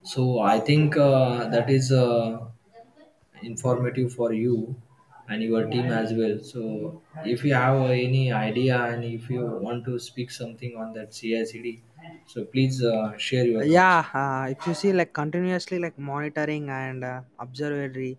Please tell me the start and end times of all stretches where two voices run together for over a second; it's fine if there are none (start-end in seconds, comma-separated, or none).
none